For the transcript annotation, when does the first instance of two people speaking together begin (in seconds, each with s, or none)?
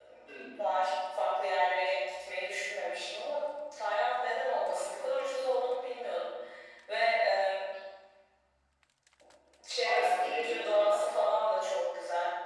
9.8 s